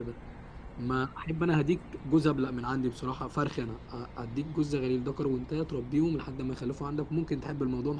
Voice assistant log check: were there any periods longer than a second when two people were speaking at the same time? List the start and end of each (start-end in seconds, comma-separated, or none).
none